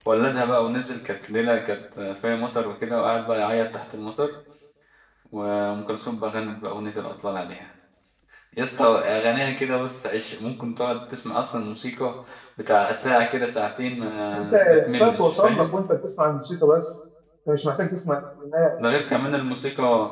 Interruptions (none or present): present